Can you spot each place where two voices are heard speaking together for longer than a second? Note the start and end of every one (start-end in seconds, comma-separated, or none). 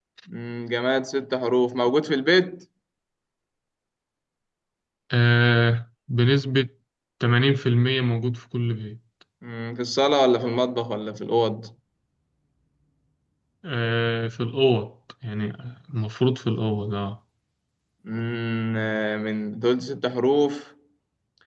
none